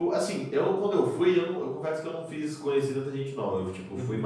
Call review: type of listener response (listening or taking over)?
listening